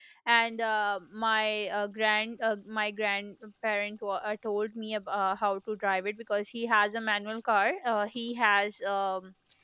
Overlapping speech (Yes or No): No